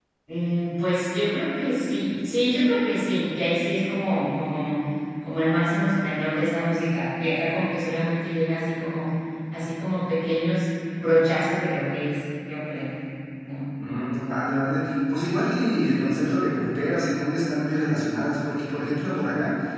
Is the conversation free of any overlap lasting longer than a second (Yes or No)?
Yes